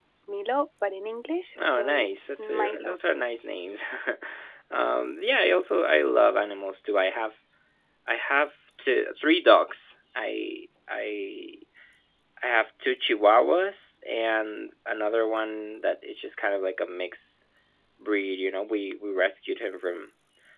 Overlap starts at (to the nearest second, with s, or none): 2 s